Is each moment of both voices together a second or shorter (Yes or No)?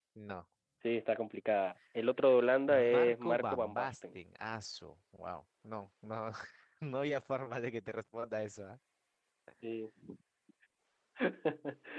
No